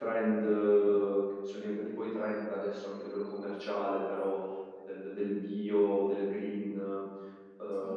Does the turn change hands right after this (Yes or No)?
No